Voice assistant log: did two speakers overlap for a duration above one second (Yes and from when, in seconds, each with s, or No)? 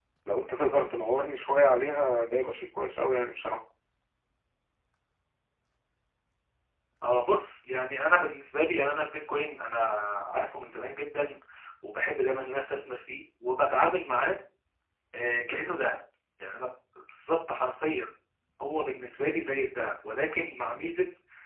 No